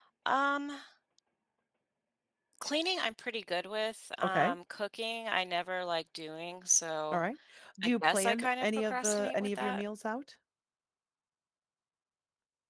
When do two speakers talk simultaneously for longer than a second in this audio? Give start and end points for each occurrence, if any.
7.8-9.8

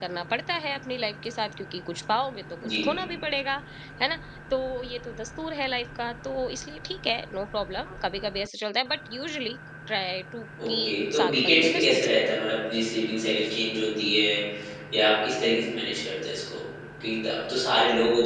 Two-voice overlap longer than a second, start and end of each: 10.7-12.2

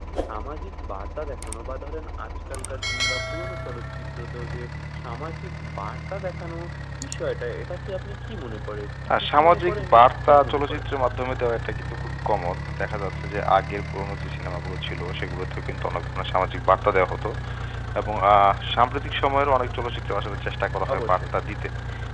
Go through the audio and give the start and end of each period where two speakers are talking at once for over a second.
9.2-10.8

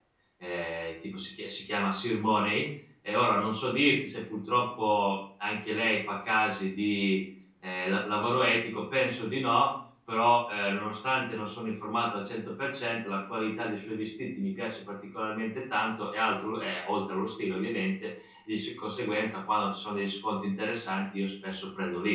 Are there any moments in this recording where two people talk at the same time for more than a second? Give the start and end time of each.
none

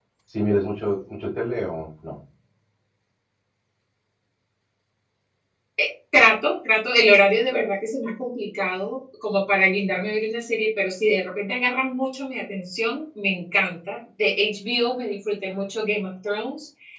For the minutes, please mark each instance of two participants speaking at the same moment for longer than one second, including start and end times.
none

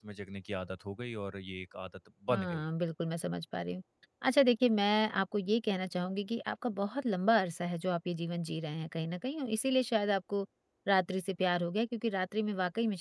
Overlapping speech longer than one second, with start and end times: none

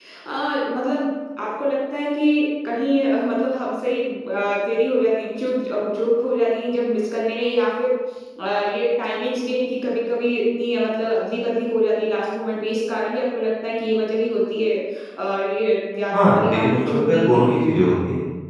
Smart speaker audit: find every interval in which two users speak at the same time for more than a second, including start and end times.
16.1-17.4

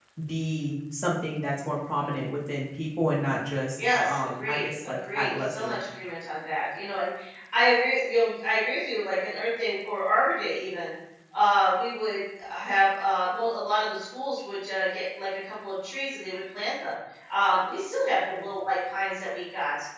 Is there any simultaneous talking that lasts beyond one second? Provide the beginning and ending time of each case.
3.8-5.7

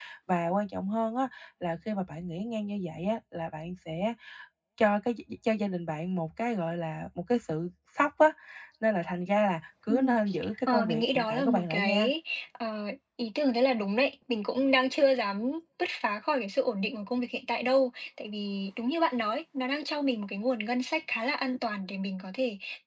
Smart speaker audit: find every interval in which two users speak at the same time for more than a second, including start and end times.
10.7-12.1

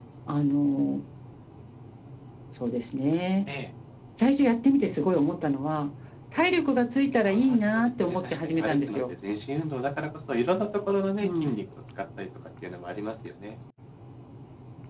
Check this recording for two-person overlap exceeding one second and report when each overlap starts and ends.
7.2-9.0

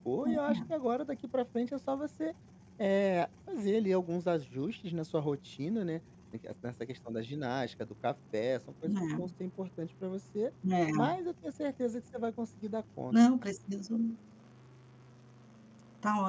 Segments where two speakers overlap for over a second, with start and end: none

